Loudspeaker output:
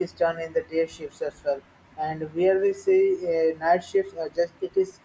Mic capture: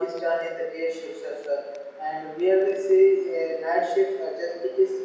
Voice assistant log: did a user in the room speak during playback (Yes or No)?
No